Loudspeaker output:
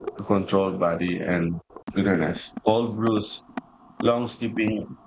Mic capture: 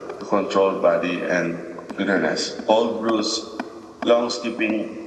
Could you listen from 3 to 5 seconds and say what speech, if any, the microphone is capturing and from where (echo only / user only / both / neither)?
echo only